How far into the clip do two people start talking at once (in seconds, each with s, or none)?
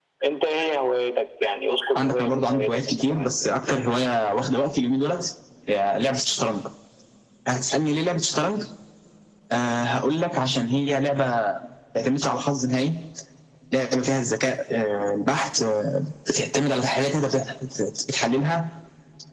1.9 s